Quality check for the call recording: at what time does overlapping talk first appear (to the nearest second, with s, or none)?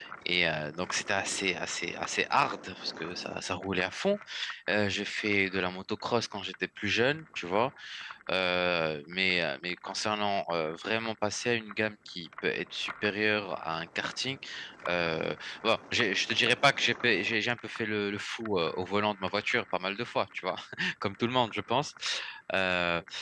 none